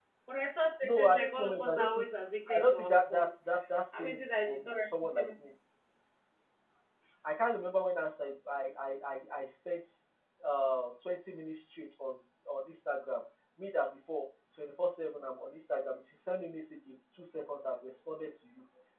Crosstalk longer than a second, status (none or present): present